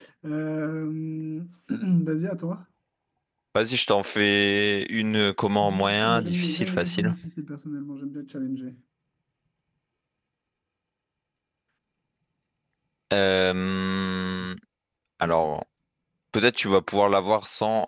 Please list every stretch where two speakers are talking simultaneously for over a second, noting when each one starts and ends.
5.6-7.1

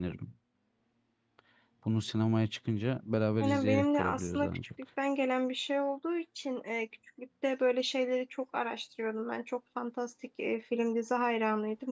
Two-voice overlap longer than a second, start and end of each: 3.4-4.7

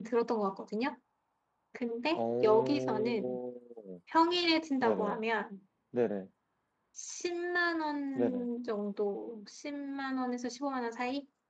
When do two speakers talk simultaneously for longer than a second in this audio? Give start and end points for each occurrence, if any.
2.1-3.4

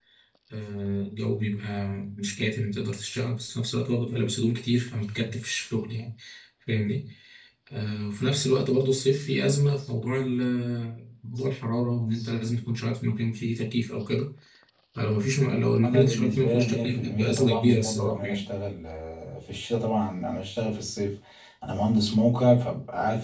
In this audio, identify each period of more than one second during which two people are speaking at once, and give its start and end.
15.8-18.4

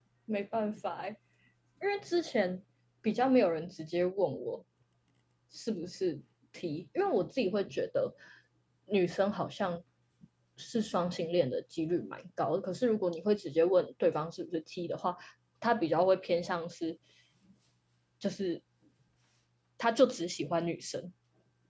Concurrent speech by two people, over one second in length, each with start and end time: none

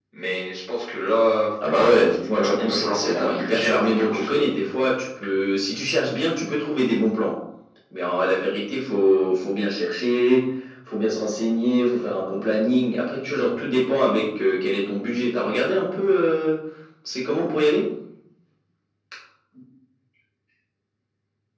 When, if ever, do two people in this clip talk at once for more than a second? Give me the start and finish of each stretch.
1.7-4.4

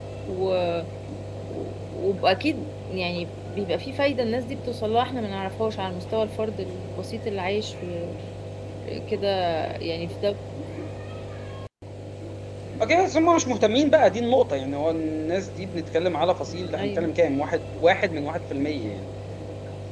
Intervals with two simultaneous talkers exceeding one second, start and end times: none

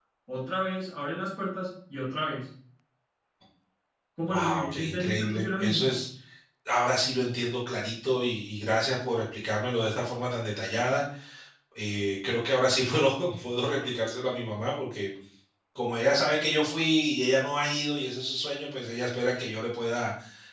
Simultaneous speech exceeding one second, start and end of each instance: 4.3-6.0

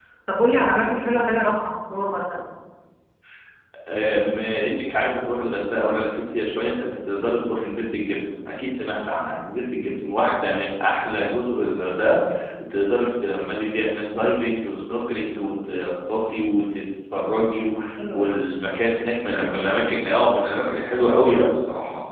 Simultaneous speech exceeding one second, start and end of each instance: none

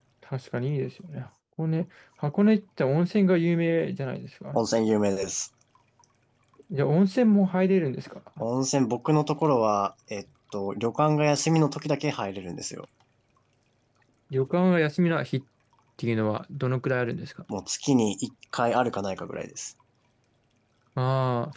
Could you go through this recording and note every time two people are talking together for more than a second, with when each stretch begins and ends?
none

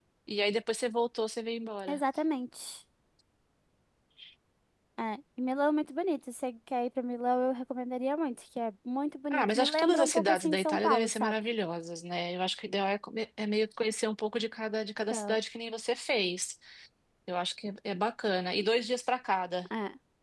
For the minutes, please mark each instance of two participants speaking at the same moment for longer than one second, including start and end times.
9.3-11.3

